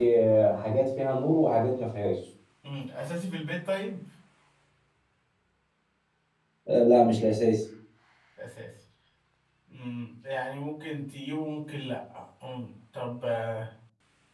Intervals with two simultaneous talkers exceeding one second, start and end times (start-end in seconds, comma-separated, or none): none